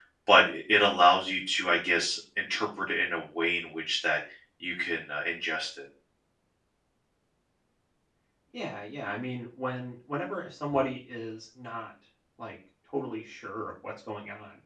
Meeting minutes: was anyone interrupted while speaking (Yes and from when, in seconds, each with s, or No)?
No